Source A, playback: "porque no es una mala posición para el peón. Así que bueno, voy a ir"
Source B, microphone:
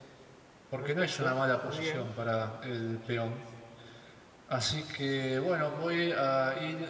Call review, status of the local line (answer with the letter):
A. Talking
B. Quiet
A